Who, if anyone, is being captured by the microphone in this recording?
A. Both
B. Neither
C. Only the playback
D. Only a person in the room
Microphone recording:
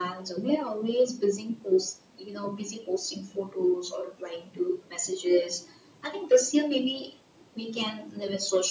C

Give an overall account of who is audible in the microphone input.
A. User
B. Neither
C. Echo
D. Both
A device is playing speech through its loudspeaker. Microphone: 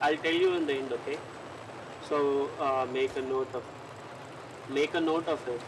A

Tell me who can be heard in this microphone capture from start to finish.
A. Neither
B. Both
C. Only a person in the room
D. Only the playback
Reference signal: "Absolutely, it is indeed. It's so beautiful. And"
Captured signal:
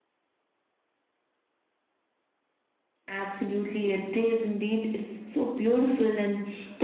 D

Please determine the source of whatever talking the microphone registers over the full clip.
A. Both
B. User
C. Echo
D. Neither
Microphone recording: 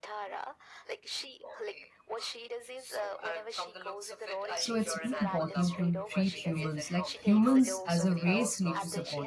A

